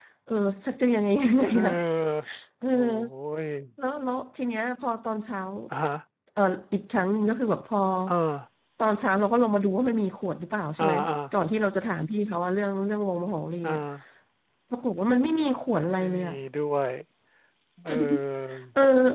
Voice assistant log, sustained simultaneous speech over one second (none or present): none